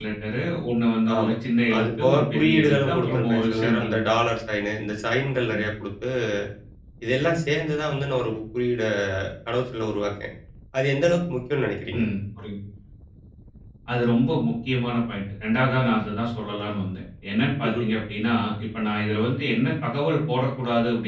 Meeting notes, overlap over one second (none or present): present